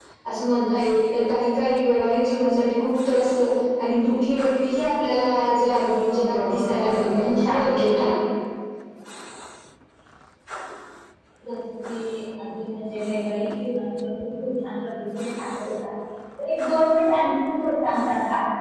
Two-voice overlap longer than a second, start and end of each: 5.7-7.7

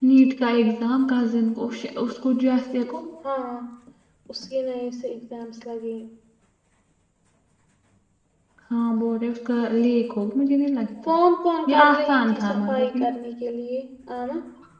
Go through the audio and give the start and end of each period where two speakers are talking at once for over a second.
11.7-13.1

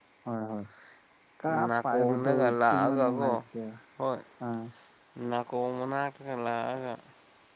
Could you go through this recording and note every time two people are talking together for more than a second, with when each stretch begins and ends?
1.7-3.3

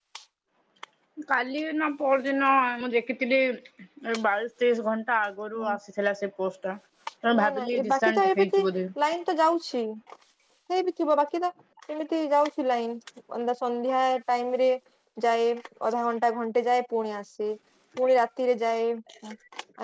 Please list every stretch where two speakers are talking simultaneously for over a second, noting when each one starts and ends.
7.4-8.6

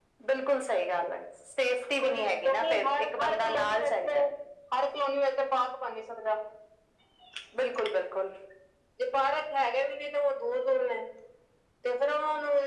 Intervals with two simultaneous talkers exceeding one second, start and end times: 2.0-4.2

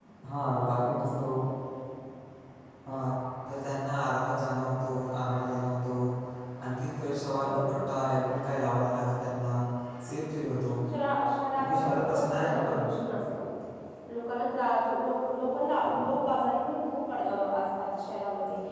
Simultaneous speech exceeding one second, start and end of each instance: 11.6-12.8

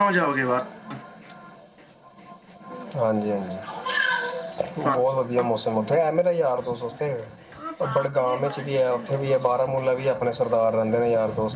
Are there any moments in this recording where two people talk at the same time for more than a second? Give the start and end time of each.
7.9-9.3

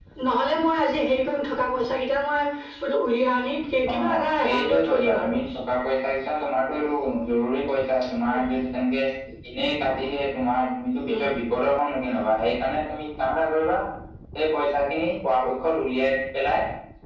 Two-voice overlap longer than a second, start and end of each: 3.9-5.4

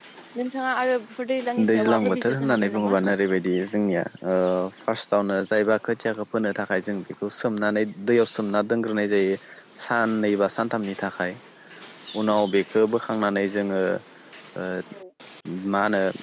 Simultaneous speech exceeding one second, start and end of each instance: 1.7-3.0

